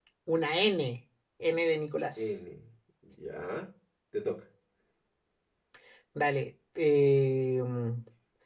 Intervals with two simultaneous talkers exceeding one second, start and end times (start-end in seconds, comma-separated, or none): none